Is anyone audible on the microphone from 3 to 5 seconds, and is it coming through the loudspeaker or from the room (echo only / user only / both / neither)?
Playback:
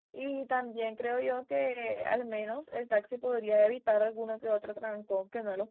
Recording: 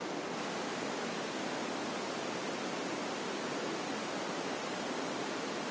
neither